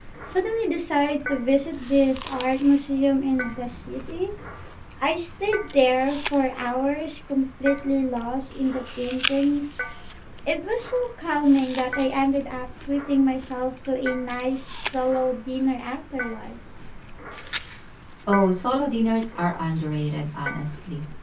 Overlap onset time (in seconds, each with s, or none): none